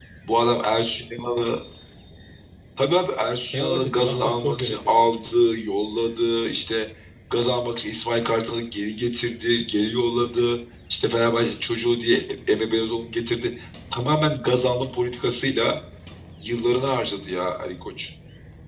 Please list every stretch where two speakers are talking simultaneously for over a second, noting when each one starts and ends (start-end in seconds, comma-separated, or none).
3.5-5.2